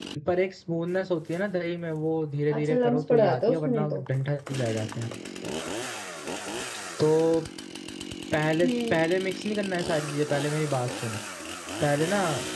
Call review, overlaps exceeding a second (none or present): present